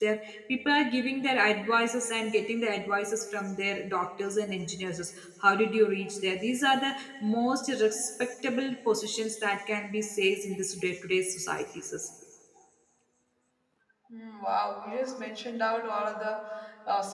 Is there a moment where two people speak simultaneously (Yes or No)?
No